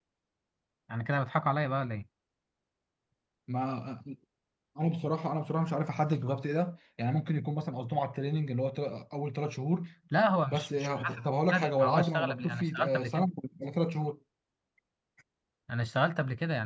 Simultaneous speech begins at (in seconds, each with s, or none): 10.5 s